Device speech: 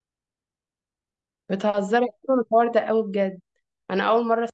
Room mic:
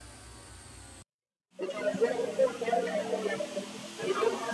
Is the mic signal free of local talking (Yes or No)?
Yes